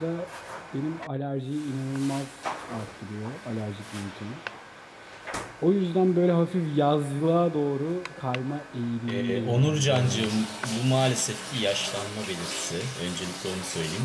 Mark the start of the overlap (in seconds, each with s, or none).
9.1 s